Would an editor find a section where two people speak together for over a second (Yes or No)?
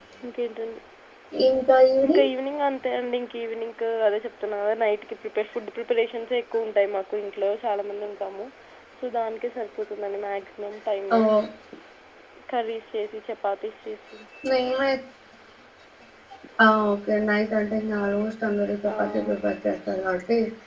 No